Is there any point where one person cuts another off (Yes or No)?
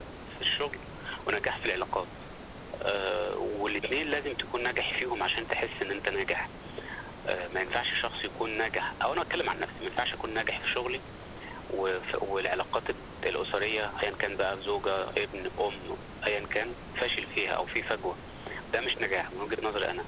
No